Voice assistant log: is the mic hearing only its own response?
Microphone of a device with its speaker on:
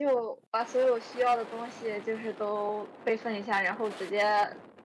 No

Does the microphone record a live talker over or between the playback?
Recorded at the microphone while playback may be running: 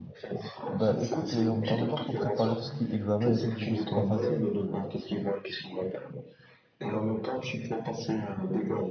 Yes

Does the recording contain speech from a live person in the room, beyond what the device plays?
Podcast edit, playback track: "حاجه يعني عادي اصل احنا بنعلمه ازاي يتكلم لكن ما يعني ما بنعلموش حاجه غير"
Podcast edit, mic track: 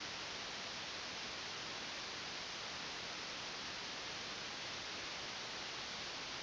No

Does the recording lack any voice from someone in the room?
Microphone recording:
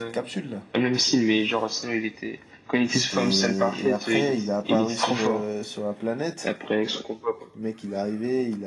Yes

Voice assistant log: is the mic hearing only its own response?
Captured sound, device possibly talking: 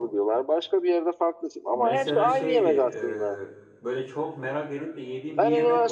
No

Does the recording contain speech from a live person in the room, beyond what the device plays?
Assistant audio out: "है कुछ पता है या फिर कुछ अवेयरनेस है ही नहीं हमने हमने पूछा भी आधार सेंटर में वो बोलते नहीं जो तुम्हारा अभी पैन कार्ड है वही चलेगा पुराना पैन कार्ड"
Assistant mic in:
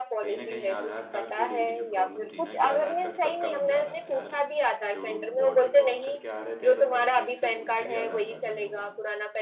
Yes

